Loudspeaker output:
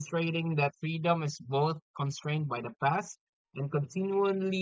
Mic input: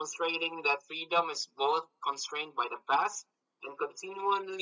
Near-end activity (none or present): none